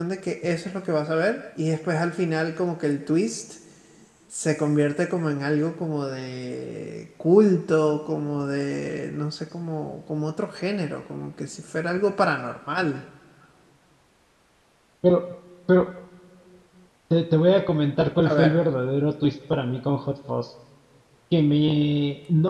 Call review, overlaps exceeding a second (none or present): none